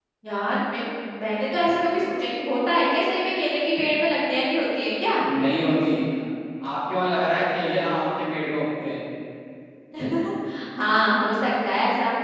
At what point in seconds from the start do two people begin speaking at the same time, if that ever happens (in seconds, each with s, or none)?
none